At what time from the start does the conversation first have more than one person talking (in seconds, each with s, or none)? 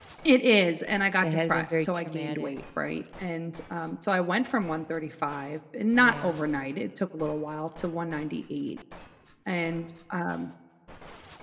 1.2 s